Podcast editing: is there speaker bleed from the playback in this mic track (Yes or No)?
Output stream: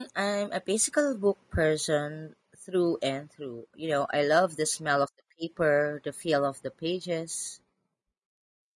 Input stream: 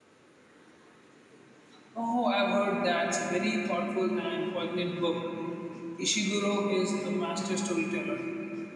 No